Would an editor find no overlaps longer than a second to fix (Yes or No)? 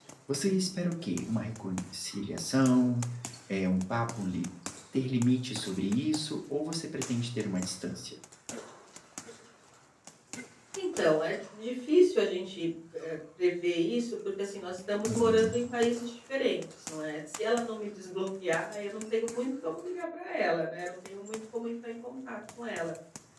Yes